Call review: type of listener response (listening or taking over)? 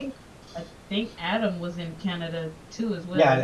taking over